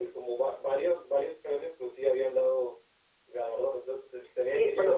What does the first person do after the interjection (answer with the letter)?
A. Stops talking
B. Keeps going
A